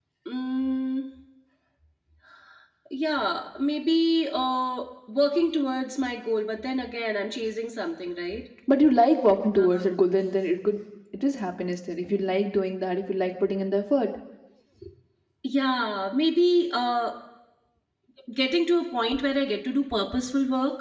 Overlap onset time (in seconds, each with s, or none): none